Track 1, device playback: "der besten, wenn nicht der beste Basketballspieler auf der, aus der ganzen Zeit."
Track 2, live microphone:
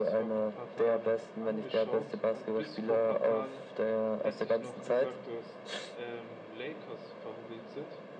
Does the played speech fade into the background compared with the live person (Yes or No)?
No